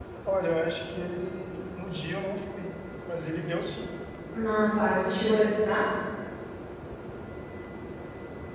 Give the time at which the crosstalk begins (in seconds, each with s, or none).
none